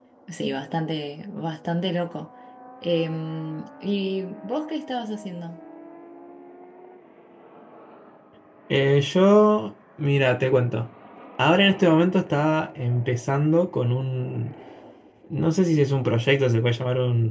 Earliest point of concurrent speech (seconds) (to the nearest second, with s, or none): none